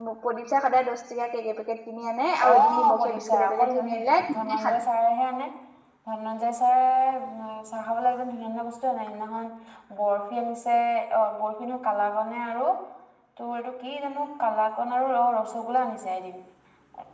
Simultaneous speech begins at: 2.4 s

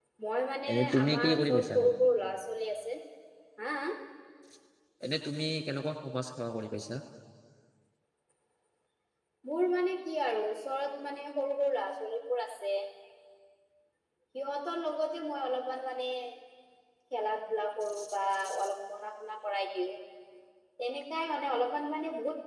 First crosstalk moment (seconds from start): 0.7 s

